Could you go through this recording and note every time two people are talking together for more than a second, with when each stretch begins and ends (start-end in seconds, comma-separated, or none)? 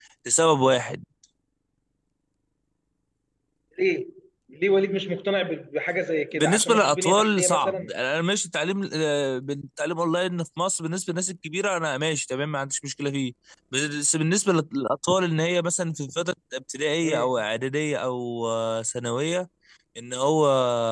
6.3-7.9